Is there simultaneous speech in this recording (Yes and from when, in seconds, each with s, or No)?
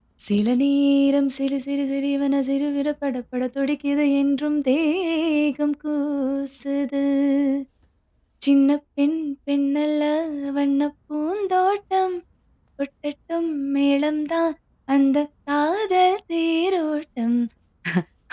No